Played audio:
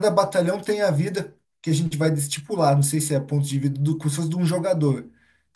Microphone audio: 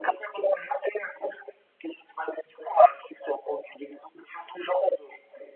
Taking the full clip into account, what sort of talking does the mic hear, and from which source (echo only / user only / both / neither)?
echo only